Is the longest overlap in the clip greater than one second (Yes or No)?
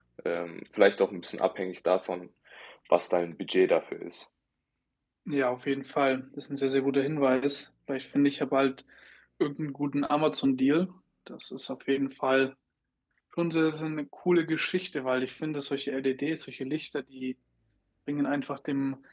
No